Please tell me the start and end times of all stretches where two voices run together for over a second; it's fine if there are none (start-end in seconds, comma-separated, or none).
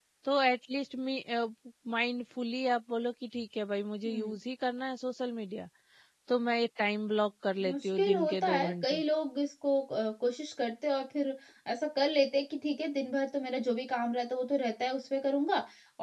7.6-9.0